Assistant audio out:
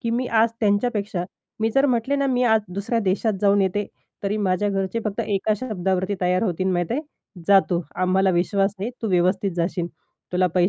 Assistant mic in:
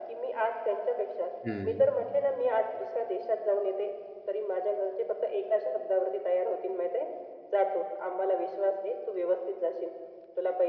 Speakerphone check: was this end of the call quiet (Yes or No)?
No